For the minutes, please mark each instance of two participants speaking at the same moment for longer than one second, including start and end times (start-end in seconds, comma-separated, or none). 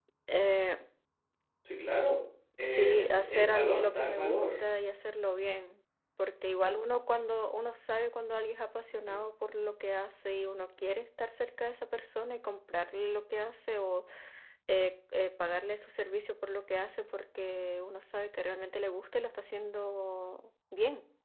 2.6-4.6